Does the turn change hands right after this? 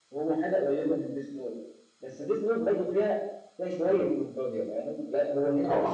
No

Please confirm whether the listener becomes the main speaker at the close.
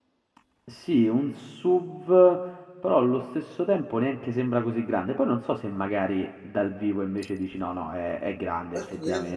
Yes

